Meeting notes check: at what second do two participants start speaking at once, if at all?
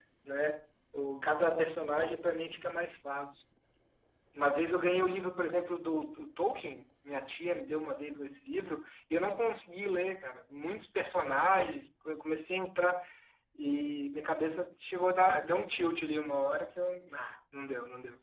none

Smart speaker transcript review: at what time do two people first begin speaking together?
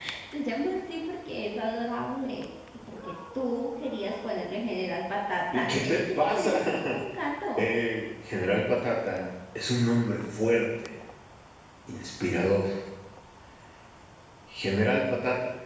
5.5 s

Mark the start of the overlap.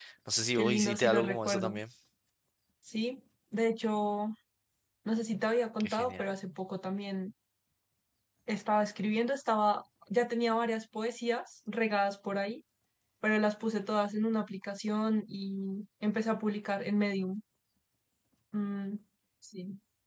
0.6 s

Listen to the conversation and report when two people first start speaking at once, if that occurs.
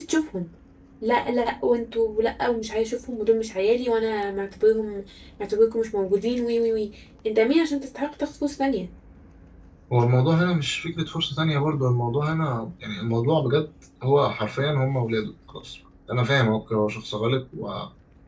none

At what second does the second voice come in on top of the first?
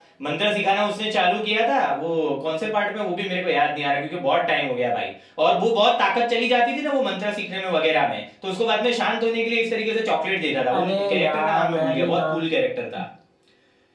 10.7 s

